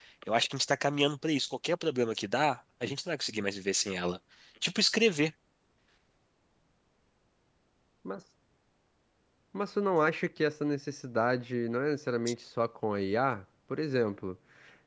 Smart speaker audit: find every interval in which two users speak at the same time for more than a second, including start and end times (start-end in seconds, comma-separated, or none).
none